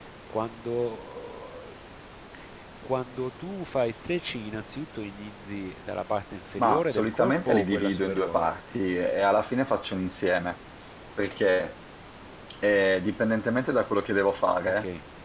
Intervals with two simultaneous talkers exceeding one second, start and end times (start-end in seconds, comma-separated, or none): 6.6-8.5